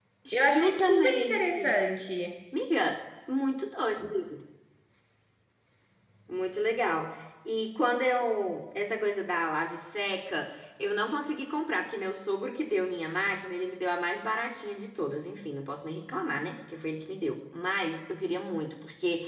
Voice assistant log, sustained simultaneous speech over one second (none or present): present